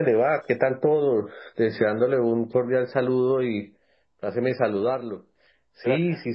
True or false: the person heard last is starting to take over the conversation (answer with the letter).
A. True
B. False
B